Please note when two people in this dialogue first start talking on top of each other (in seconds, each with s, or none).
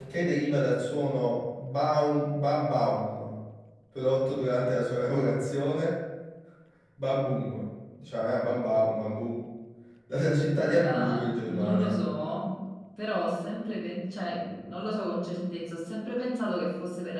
10.6 s